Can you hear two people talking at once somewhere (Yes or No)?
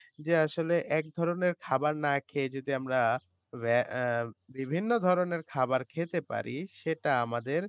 No